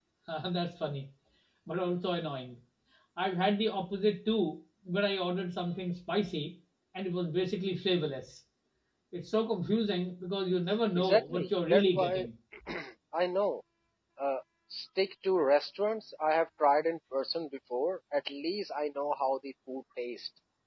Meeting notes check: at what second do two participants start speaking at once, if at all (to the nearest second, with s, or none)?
11 s